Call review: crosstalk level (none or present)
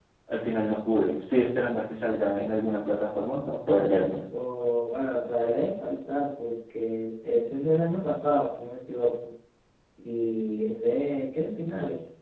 none